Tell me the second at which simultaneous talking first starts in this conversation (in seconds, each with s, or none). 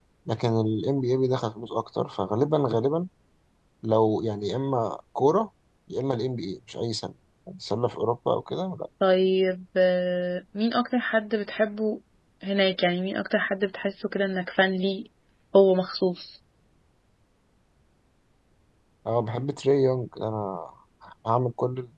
none